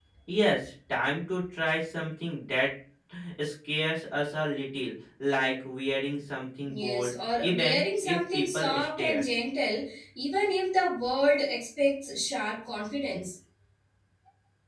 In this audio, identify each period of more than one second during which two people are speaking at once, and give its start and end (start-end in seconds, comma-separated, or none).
6.7-9.2